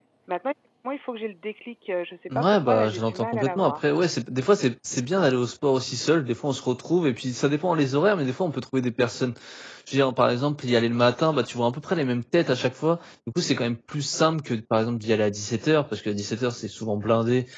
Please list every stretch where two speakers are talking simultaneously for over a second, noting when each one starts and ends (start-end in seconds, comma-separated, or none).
2.4-3.7